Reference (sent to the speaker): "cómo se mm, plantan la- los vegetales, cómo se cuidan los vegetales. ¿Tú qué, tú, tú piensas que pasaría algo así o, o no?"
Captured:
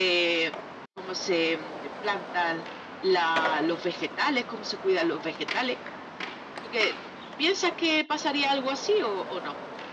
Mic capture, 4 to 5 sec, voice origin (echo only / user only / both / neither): echo only